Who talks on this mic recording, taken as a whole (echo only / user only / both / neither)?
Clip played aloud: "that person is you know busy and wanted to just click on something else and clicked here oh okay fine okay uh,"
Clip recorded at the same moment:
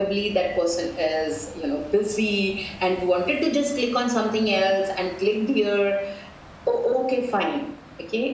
both